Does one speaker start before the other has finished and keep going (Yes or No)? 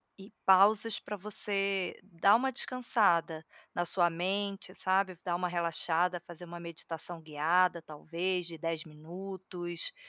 No